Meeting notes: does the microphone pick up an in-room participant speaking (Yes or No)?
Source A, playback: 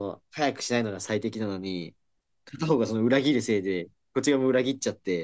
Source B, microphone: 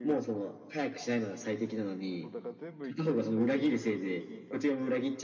Yes